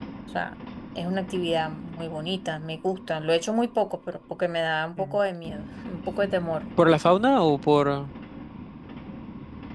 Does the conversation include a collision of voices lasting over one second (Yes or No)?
No